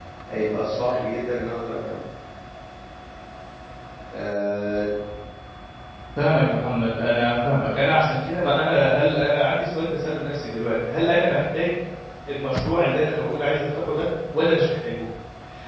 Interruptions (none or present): none